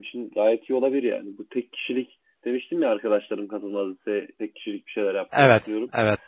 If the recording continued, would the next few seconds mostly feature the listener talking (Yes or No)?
No